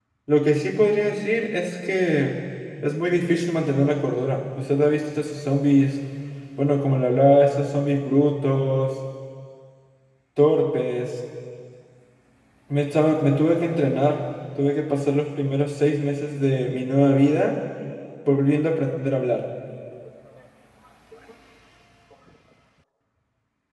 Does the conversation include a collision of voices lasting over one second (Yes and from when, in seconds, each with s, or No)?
No